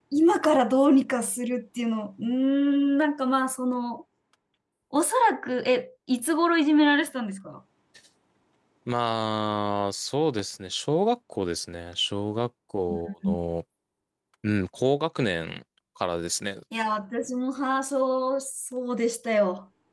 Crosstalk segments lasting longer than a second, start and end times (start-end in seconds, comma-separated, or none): none